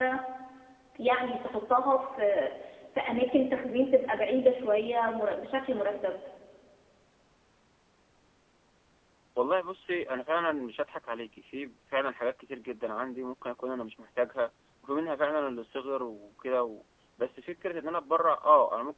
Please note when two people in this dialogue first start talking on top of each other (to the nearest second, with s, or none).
none